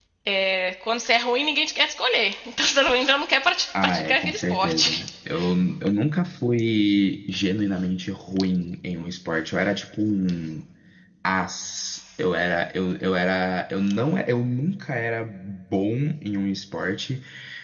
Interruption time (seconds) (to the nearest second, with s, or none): 4 s